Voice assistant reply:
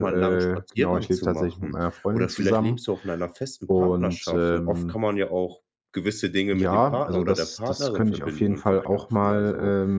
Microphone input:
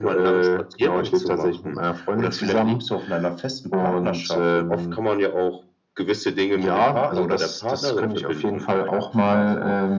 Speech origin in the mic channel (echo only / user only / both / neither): echo only